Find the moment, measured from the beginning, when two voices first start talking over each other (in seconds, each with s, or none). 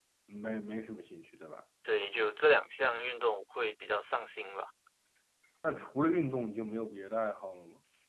none